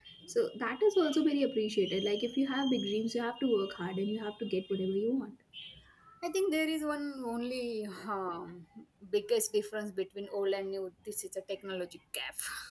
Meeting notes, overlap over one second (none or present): none